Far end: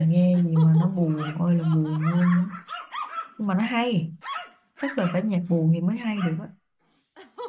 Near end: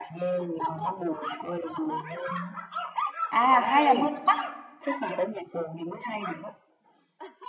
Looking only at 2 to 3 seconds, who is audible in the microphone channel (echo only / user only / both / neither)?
echo only